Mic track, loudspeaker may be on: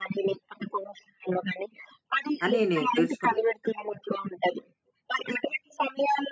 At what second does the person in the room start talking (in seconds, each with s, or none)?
2.4 s